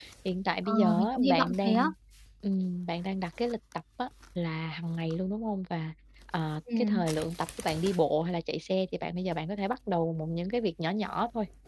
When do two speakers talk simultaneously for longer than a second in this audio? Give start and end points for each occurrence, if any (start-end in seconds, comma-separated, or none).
0.7-1.9